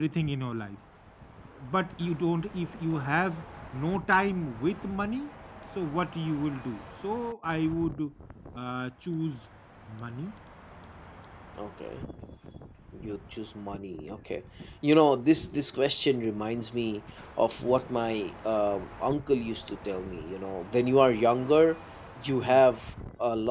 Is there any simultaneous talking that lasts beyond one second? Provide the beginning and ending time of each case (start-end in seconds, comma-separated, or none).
none